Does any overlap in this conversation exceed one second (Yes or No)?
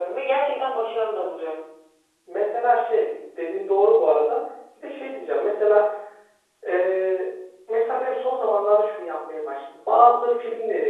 No